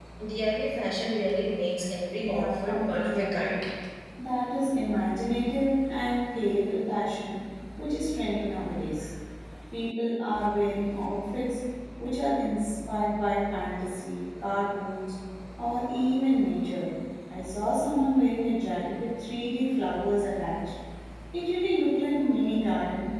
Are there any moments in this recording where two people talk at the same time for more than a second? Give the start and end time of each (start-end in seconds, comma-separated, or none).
2.2-3.5